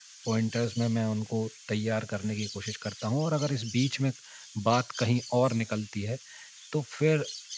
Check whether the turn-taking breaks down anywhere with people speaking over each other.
No

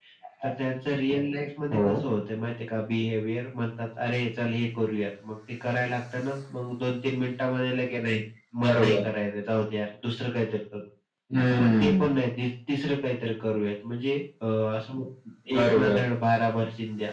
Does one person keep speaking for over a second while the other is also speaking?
No

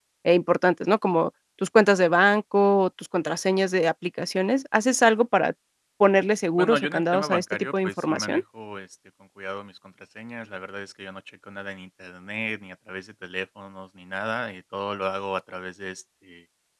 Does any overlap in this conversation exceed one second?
Yes, from 6.6 s

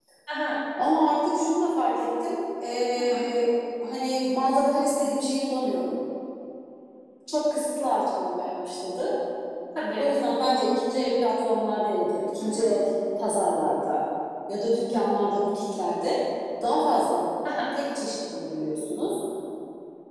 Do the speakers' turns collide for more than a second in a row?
No

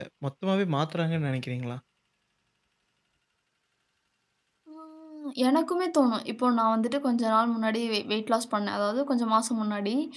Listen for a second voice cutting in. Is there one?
No

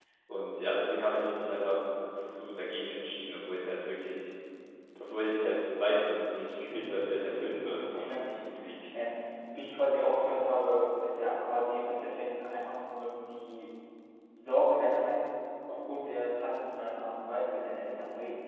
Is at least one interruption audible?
Yes, from 6.7 s

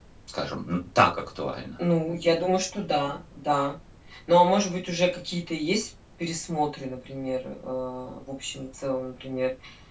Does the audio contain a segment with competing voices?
No

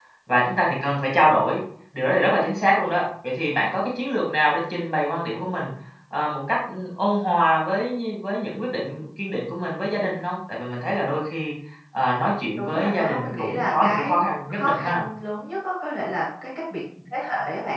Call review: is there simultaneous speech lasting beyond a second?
Yes, from 12.6 s

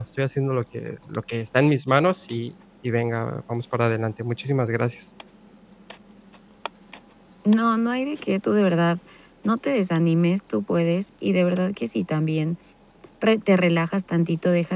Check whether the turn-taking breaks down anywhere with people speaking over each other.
No

